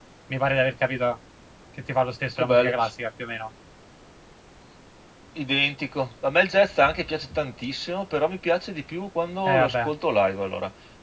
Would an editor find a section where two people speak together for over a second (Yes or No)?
No